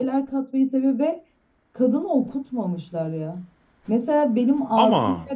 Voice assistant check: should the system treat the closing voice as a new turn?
No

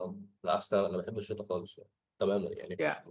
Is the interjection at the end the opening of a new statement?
No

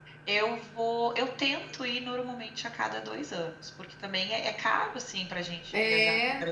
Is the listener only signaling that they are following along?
No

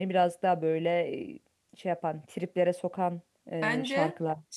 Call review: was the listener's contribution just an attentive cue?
No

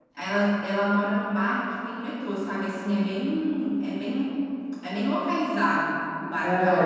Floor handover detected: Yes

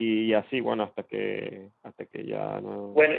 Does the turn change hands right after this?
Yes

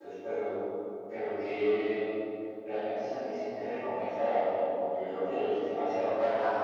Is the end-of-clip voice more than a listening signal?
Yes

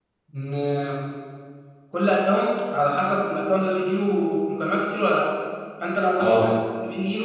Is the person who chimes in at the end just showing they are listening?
Yes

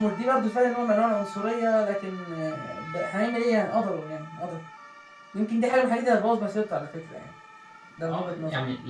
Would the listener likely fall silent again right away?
No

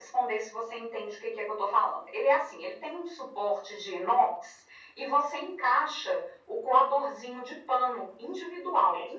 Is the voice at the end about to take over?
No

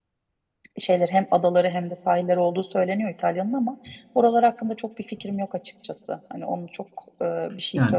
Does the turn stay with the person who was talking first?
No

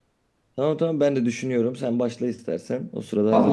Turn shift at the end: Yes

